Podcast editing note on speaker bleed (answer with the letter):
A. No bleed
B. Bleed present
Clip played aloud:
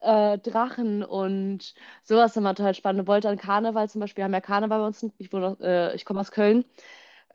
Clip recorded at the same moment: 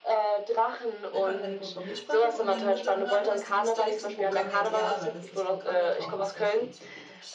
B